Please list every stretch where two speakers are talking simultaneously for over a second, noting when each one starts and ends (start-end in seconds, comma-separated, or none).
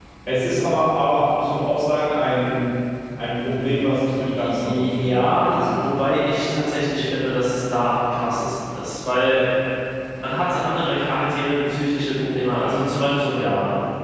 4.4-5.8